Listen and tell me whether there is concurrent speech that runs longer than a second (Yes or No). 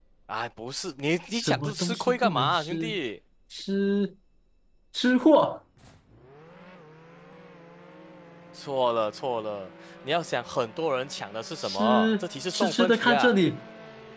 Yes